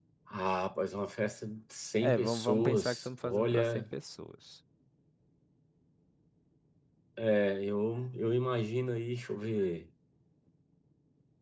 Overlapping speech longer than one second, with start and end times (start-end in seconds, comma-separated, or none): 2.0-3.8